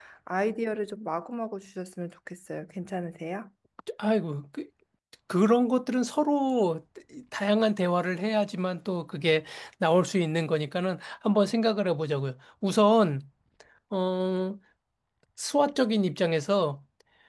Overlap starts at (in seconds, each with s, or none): none